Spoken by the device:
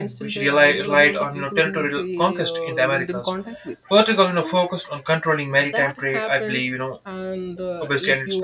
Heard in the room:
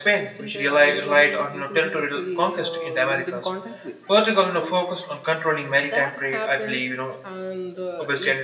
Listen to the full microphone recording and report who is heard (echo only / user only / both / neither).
echo only